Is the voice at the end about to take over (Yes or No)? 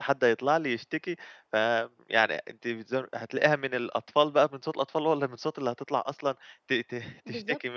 Yes